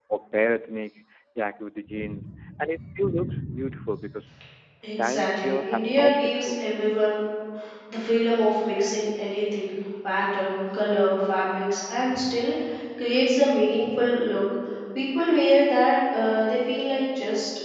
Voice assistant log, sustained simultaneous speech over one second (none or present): present